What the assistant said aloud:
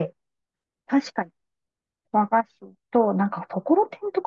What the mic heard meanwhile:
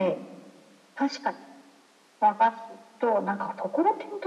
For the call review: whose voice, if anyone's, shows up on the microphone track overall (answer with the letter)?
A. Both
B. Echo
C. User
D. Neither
B